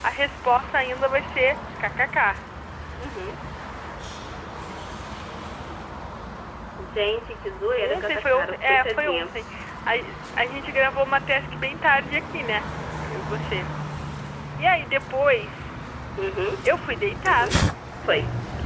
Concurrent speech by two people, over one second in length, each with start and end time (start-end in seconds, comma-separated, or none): 7.8-9.3